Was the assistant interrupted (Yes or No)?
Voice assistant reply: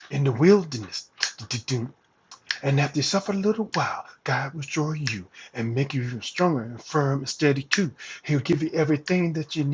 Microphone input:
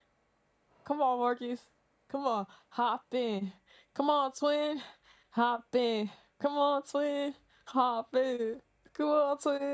Yes